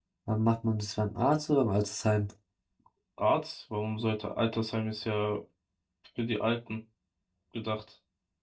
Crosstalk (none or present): none